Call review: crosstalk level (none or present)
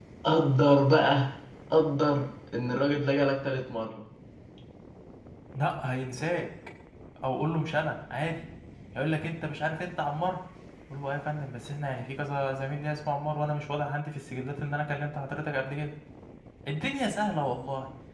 none